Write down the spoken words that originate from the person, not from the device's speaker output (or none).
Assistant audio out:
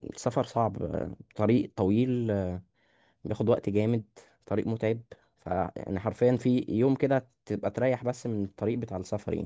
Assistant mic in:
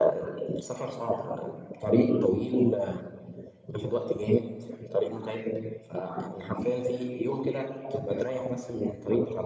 none